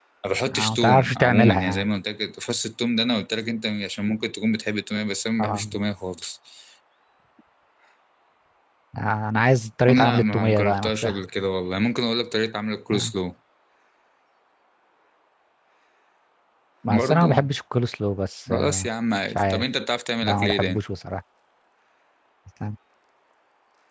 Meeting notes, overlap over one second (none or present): present